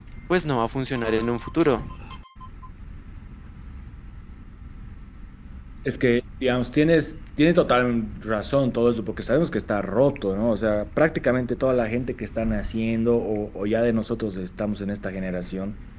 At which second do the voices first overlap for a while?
none

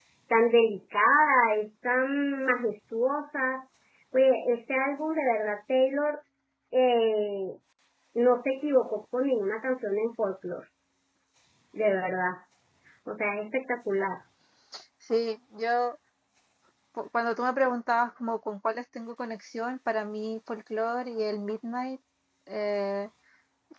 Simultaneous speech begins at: none

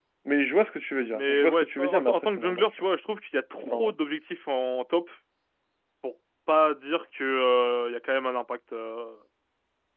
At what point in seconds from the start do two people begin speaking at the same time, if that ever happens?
1.1 s

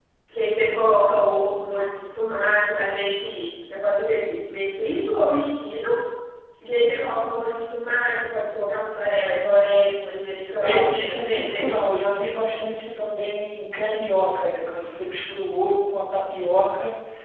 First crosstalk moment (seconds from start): 10.6 s

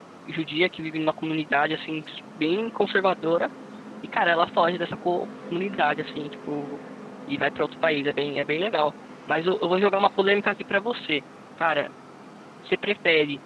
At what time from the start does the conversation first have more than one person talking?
none

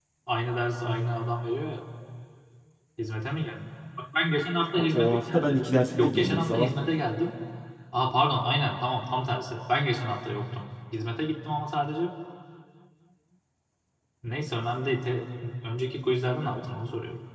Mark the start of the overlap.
4.7 s

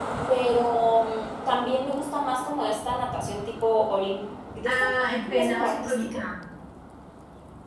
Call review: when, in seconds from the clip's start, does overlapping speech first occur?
4.6 s

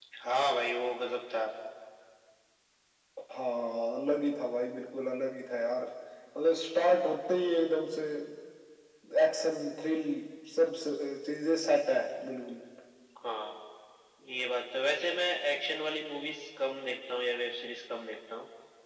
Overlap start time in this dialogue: none

